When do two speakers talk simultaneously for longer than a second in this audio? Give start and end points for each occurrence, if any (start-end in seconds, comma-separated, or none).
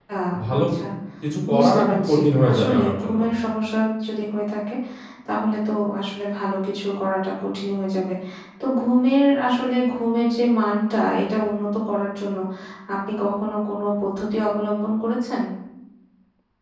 1.5-3.2